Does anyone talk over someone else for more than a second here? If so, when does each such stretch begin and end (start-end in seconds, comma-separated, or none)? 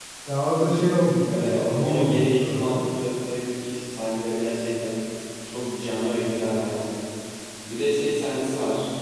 1.3-2.8